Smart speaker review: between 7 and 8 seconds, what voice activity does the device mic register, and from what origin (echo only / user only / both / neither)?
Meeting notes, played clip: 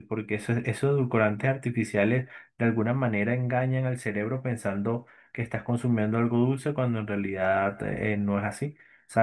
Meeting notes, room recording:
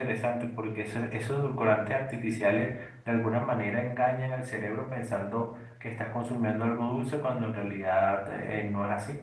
echo only